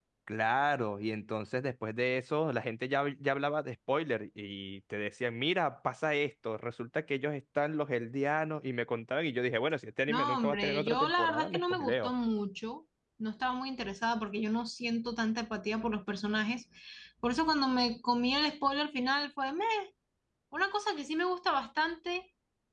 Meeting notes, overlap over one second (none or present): present